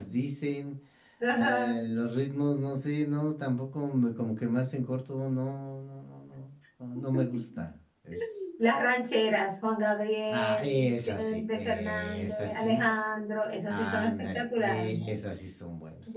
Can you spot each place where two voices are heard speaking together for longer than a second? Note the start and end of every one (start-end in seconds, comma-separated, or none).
10.3-12.8, 13.7-15.2